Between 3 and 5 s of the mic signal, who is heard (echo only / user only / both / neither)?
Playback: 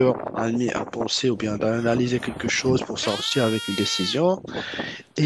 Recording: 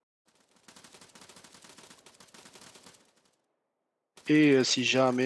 user only